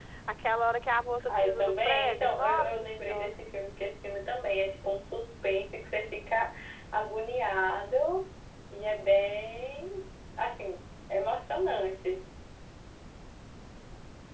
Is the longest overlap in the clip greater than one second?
Yes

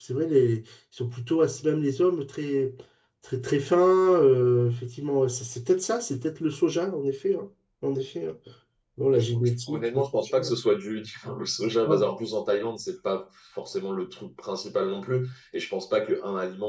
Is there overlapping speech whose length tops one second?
Yes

